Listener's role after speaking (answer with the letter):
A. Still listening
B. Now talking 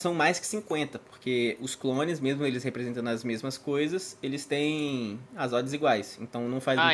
B